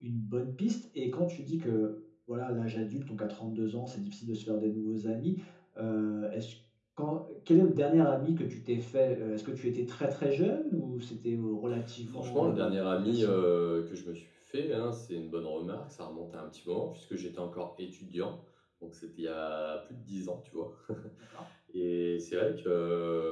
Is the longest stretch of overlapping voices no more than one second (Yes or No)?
No